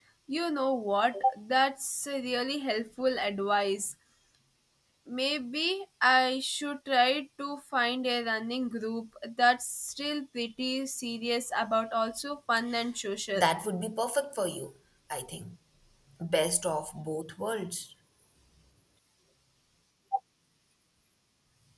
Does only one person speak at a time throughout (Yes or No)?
Yes